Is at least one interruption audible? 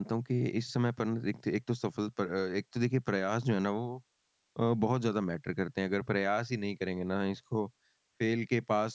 No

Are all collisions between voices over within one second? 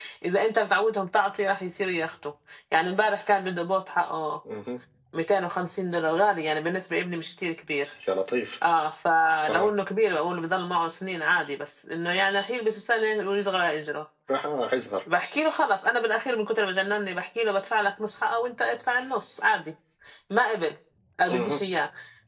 Yes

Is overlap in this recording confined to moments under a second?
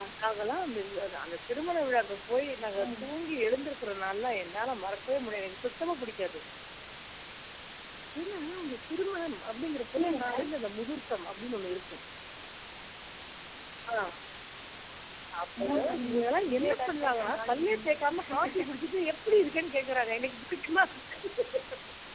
No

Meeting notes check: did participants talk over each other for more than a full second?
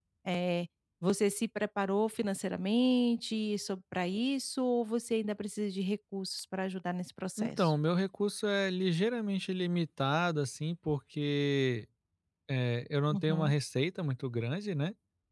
No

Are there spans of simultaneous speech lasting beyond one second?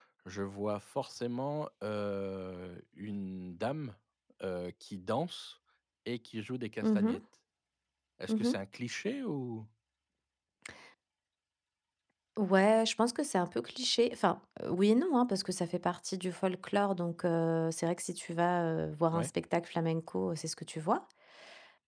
No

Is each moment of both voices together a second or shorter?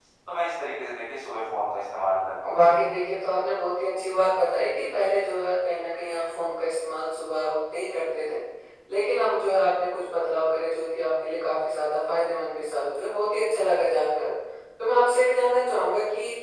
Yes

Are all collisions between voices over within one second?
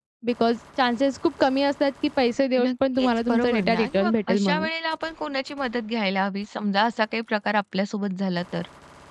No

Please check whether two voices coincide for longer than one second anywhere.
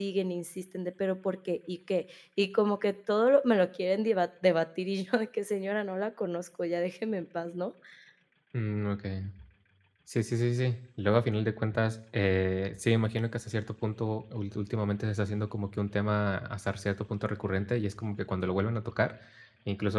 No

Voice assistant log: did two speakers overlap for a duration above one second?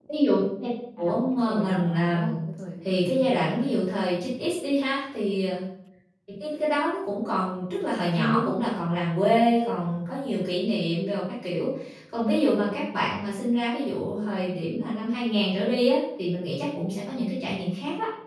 Yes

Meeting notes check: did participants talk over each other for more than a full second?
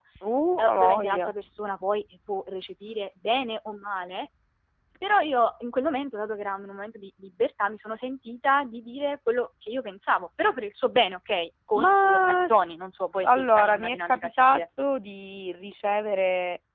Yes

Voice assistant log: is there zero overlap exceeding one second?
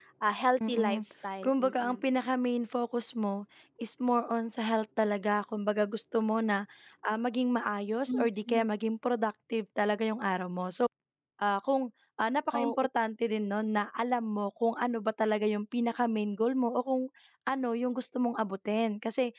Yes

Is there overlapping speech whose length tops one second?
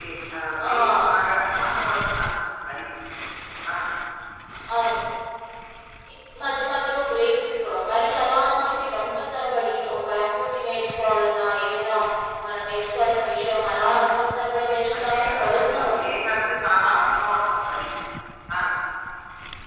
Yes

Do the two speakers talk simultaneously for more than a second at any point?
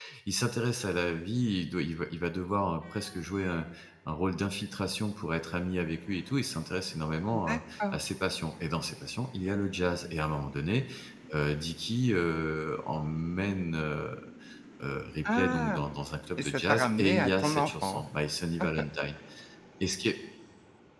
Yes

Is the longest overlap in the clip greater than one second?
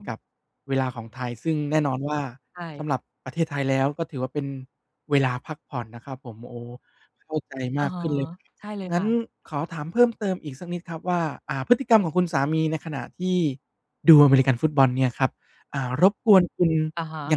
No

